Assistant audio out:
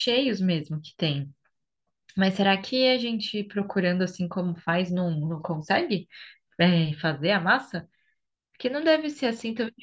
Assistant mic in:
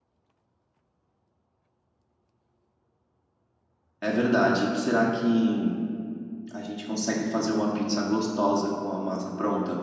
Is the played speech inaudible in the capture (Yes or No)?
Yes